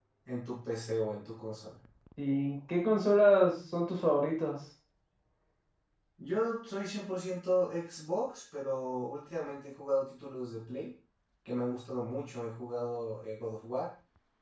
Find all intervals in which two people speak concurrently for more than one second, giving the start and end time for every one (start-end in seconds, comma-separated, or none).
none